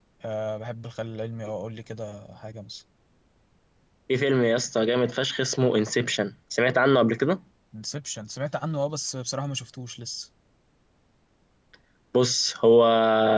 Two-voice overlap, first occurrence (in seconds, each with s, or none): none